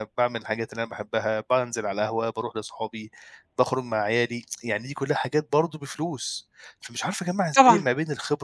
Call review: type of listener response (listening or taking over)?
listening